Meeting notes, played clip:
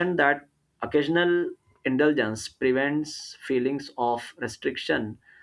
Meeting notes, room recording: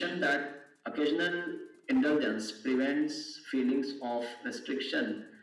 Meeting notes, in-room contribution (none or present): none